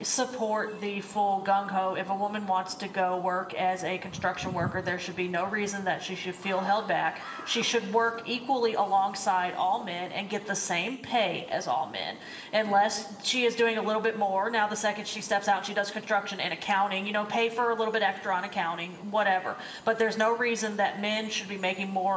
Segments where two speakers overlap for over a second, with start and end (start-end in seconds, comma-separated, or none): none